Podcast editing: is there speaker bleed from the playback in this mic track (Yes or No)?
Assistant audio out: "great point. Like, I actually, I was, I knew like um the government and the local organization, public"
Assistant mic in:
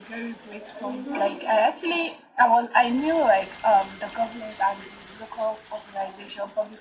Yes